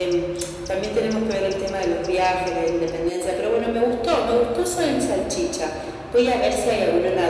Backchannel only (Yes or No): Yes